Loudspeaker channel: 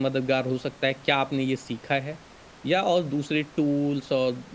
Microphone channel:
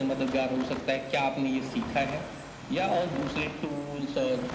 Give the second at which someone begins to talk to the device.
none

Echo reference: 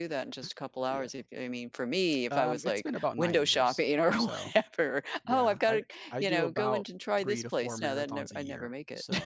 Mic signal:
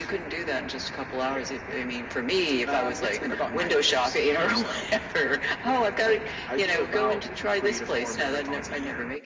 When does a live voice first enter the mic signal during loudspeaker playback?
none

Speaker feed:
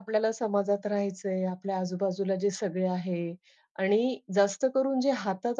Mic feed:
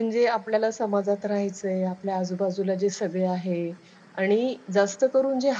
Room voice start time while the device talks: none

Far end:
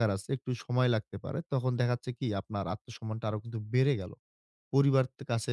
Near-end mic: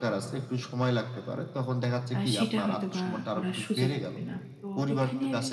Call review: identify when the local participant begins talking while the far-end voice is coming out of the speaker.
2.1 s

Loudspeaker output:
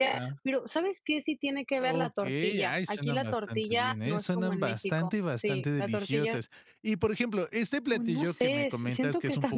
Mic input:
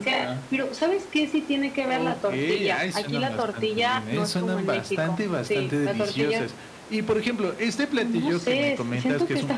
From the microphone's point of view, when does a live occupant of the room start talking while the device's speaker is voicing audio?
none

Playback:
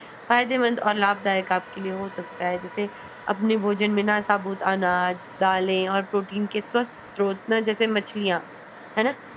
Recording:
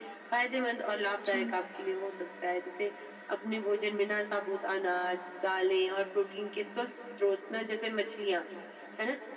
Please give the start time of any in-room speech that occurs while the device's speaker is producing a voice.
1.3 s

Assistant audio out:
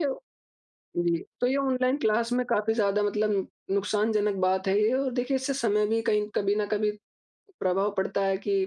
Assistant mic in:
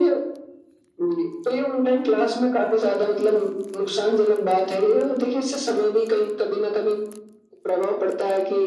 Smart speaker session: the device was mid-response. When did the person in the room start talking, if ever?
none

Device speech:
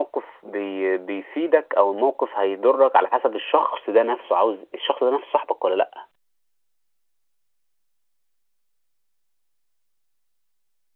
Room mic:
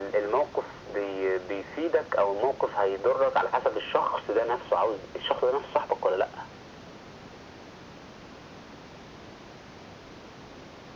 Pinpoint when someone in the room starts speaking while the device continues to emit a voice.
none

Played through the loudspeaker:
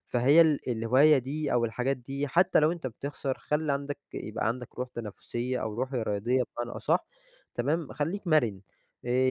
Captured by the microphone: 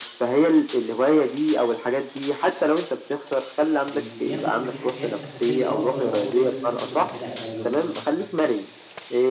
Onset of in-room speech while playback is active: 3.8 s

